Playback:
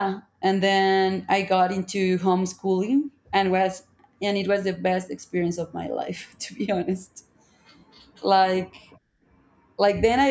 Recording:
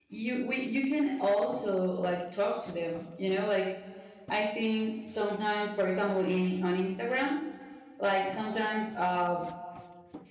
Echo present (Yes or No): No